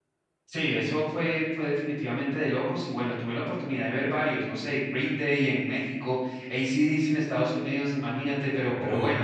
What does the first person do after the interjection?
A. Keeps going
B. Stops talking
A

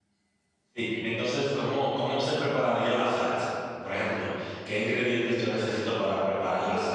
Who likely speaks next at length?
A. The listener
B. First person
B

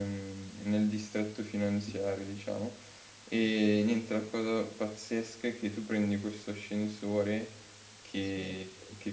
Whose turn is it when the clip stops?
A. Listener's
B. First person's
B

